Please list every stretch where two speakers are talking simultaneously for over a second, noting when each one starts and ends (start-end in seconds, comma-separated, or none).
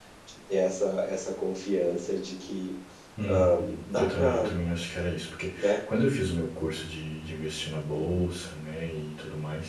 3.3-4.5